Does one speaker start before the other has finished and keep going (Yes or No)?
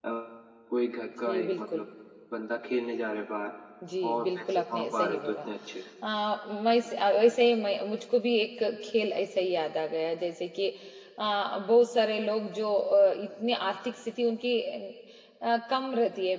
Yes